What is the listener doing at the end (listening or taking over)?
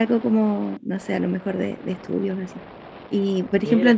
listening